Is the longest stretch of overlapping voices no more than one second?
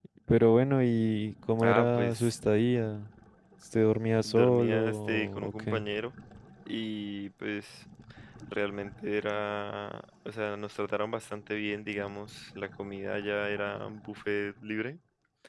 No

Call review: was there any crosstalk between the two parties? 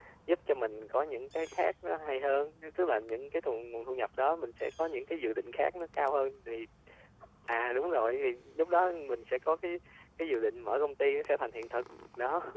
No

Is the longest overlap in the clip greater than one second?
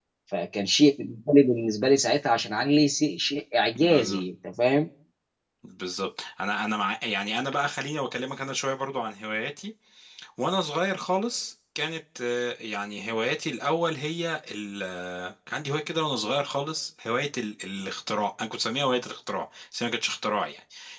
No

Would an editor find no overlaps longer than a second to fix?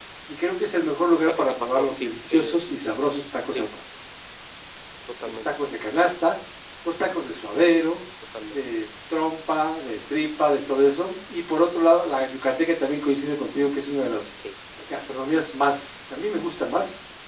No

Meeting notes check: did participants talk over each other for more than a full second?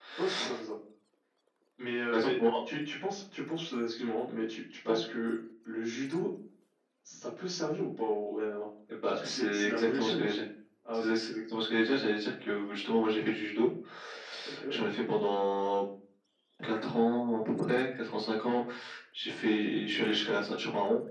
Yes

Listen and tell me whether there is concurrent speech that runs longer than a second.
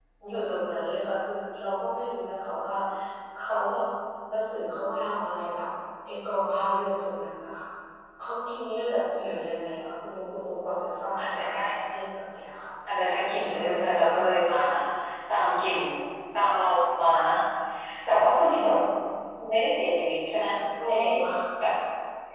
Yes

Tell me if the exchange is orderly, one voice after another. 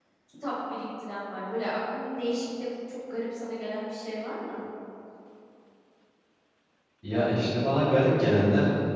Yes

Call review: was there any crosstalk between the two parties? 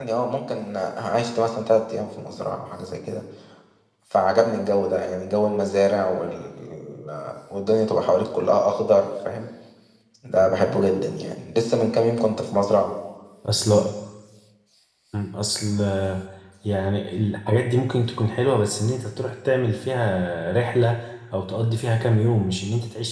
No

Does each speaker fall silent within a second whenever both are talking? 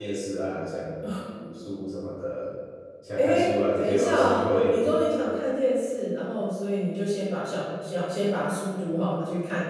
No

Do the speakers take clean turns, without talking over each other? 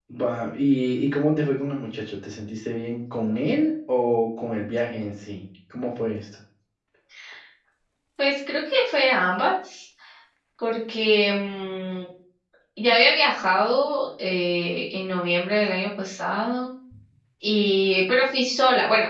Yes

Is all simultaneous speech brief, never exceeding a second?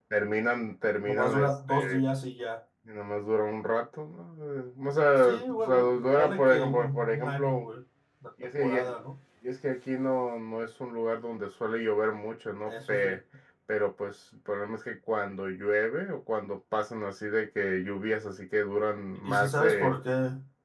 No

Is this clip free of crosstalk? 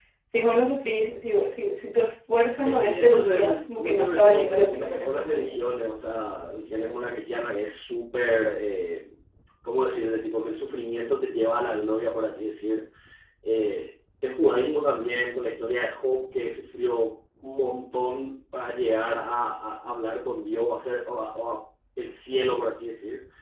No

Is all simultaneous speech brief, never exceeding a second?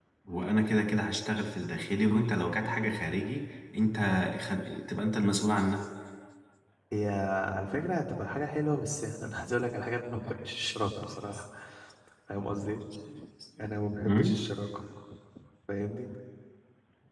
Yes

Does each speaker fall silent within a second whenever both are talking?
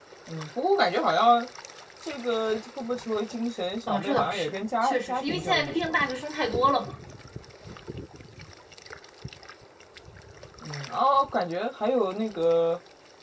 No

